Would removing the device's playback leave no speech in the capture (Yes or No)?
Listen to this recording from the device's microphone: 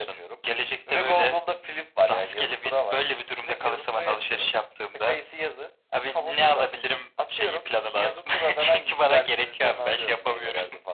Yes